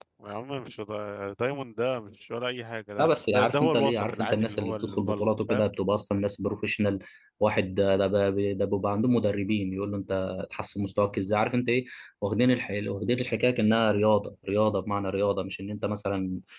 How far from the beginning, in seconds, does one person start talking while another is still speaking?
3 s

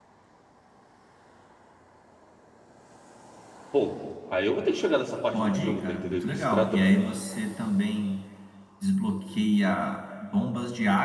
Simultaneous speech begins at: 5 s

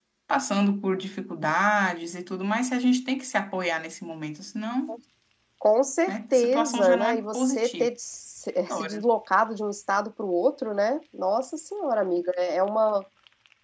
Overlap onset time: 6 s

